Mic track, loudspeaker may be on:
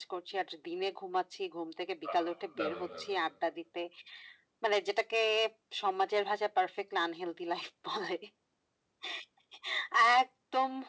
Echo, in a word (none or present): present